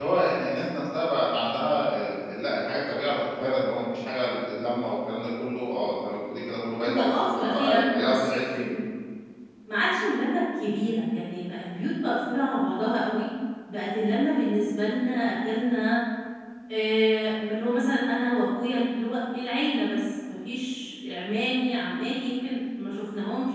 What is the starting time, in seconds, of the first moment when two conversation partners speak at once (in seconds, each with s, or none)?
6.8 s